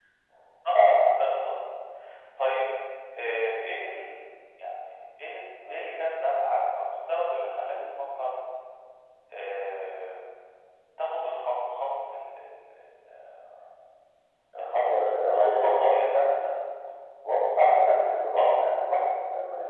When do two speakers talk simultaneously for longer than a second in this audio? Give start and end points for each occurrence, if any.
14.8-16.4

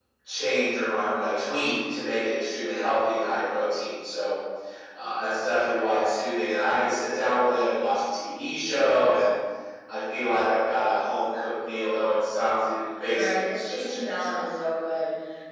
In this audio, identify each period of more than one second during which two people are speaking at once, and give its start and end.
13.1-14.5

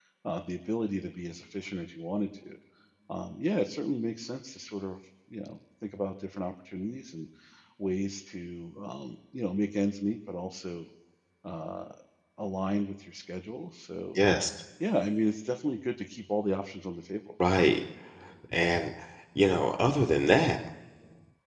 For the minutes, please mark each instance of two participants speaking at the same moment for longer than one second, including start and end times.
none

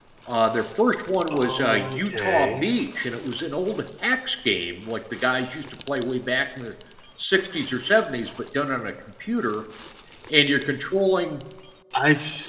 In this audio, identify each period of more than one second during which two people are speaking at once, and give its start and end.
1.3-2.7

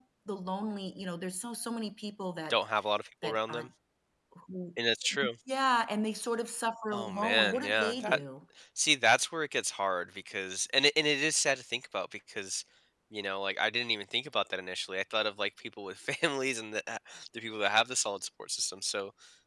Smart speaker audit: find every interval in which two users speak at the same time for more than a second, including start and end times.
6.9-8.2

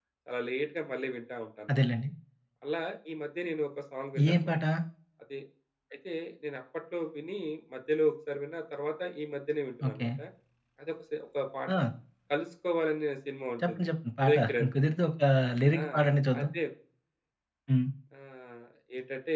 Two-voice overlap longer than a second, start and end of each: none

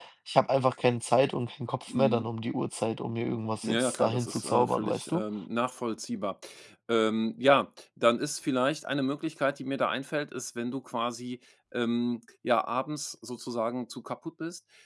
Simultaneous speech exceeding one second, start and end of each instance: 3.6-5.2

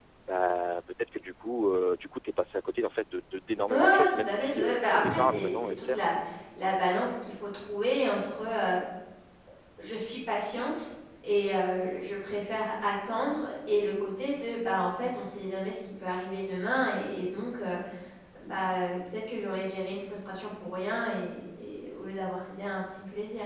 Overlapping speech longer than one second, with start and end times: 3.7-6.0

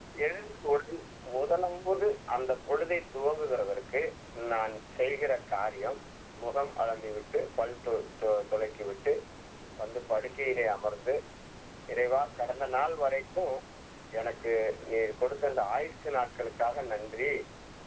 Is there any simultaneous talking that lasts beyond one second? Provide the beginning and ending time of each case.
none

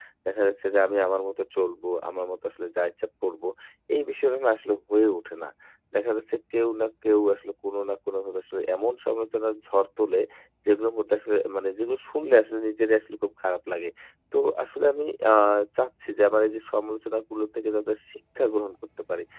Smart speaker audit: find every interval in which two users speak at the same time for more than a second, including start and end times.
none

